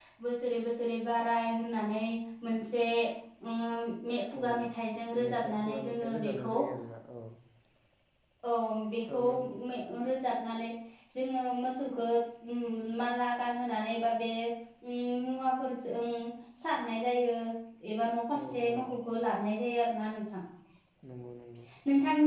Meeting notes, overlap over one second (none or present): present